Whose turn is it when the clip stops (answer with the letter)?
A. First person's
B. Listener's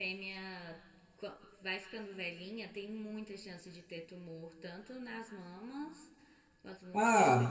B